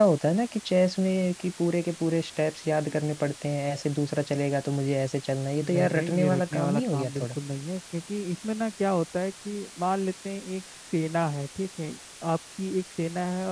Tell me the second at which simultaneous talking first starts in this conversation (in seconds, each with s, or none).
5.6 s